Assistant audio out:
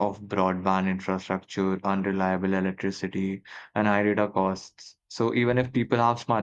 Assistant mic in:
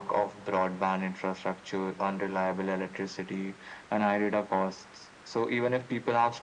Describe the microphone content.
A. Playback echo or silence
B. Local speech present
A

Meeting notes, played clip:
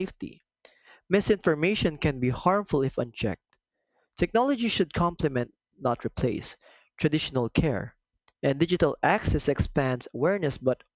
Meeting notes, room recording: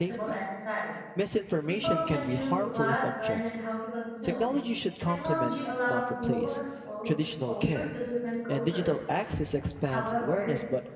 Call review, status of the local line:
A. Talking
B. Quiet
A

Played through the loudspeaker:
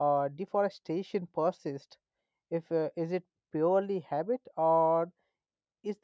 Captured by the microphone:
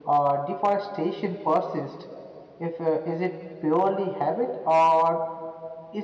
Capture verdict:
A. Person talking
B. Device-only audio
B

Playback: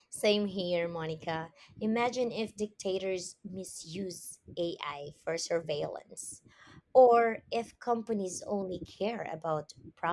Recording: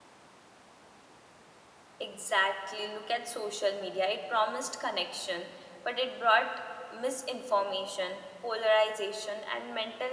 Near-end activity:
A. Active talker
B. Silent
A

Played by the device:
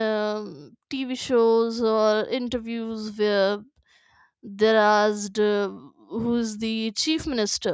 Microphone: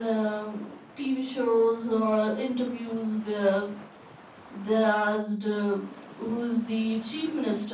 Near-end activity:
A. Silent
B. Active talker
A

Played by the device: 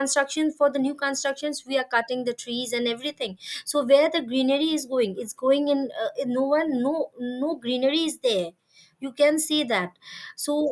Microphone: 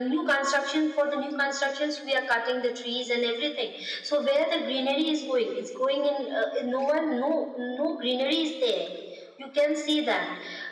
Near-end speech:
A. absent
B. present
A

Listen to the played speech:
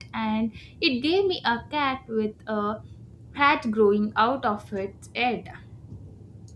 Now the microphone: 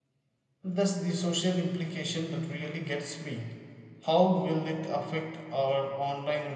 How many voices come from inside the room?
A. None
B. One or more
B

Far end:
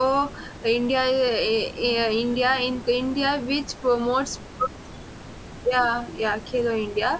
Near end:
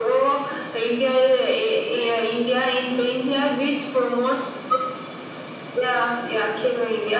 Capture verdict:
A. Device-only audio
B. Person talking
A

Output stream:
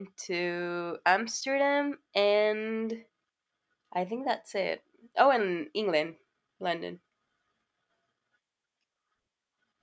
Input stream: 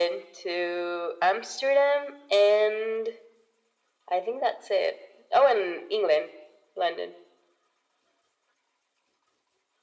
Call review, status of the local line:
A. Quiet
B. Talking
A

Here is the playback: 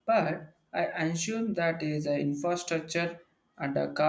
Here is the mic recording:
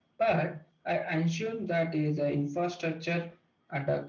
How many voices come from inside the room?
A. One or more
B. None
B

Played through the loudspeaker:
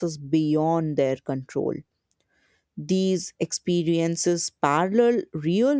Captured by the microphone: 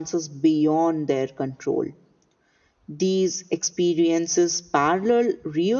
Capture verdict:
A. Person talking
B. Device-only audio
B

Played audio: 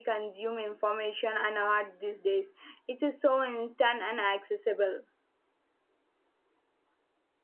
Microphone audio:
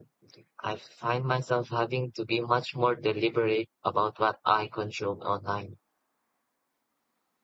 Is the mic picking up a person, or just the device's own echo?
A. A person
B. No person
A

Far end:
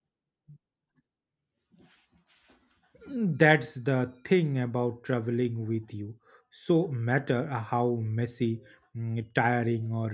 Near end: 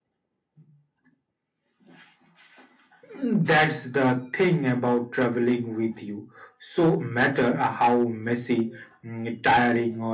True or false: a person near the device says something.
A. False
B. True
A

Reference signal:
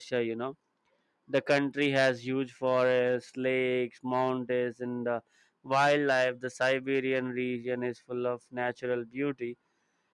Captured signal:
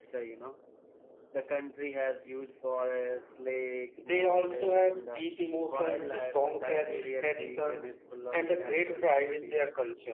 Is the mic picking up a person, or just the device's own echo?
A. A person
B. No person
A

